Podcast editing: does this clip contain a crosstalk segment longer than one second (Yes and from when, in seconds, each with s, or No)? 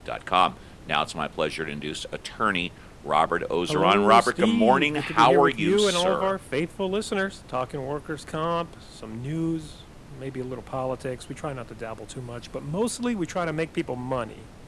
Yes, from 3.7 s